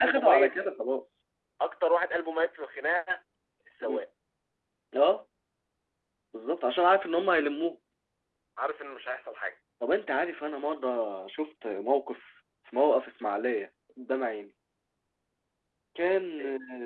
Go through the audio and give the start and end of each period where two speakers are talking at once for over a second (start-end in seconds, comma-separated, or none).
none